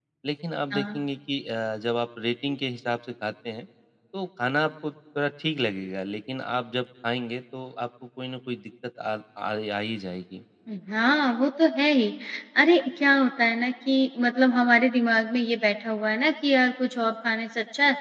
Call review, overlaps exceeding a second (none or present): none